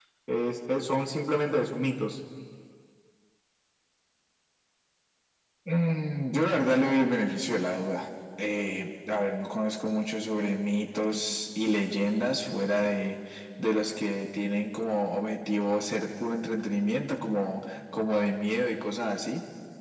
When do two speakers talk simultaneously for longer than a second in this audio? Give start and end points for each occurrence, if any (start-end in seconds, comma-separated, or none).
none